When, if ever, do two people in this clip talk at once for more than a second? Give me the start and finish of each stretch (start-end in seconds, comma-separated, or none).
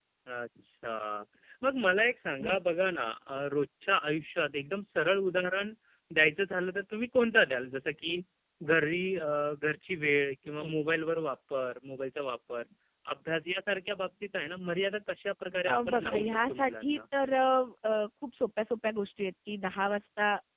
15.7-17.0